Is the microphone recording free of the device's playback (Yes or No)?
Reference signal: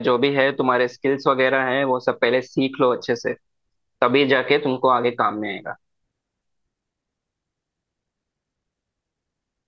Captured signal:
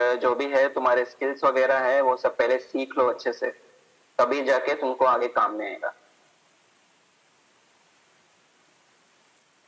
No